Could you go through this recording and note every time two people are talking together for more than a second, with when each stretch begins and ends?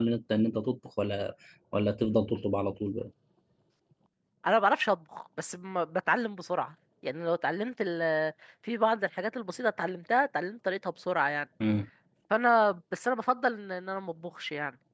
none

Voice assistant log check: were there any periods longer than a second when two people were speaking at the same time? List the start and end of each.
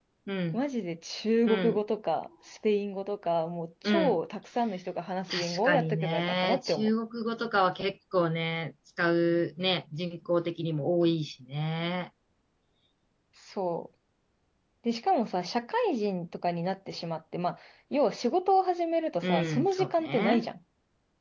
5.3-6.9, 19.2-20.4

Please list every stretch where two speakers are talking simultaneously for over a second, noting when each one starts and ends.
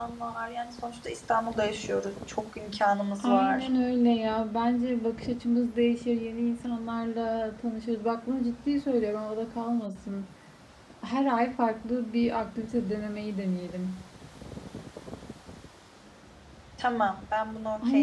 none

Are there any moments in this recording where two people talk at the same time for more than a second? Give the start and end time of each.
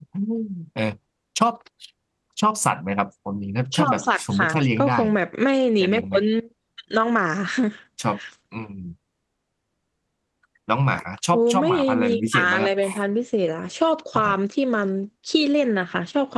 3.8-5.2, 11.3-12.7

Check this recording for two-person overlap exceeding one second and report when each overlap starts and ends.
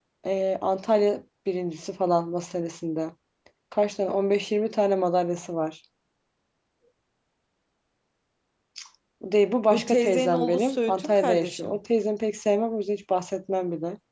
9.7-11.8

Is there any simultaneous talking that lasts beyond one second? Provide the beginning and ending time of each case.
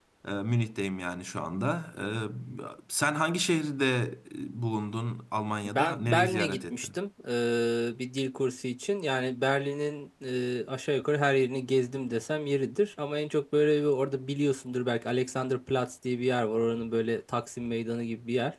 5.6-7.0

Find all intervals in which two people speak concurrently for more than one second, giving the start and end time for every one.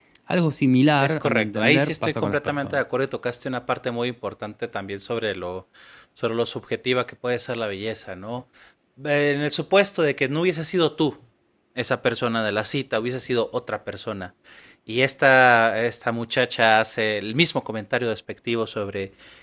1.0-2.8

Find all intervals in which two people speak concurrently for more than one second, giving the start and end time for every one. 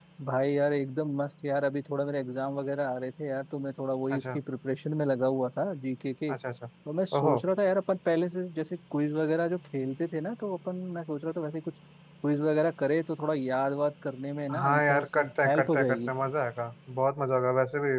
14.5-16.1

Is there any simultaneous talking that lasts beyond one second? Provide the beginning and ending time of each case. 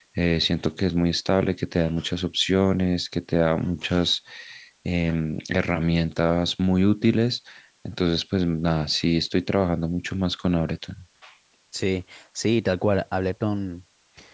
none

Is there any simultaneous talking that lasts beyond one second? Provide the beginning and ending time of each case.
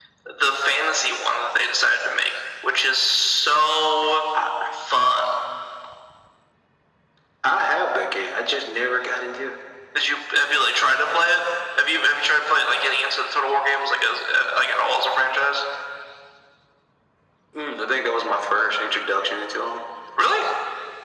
none

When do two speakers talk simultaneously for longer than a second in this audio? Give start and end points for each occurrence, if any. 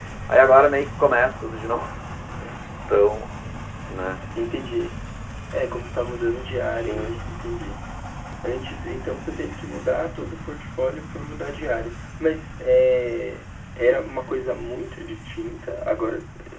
none

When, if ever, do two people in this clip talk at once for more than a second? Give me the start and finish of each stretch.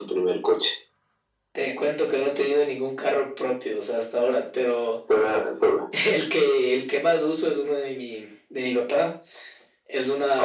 none

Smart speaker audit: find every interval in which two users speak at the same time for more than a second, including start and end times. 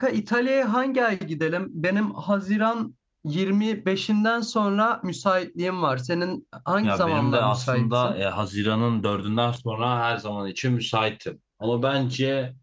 6.8-8.2

